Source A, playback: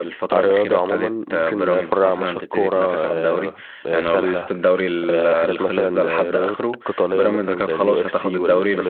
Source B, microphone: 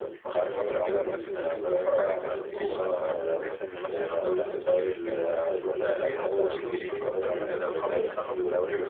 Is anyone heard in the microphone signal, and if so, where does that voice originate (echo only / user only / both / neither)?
both